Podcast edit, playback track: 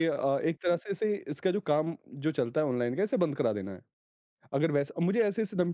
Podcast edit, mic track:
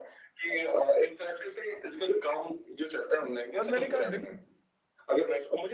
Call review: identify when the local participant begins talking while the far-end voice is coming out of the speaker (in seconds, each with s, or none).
3.6 s